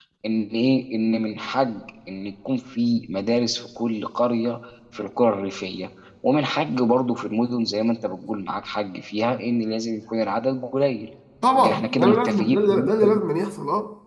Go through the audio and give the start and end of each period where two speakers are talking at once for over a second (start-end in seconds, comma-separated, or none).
11.5-13.2